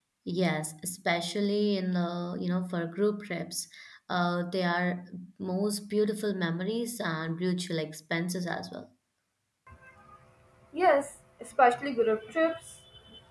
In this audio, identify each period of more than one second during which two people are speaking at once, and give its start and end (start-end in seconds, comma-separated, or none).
none